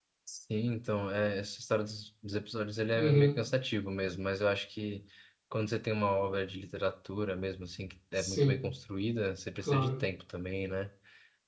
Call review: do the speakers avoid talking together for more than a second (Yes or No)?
Yes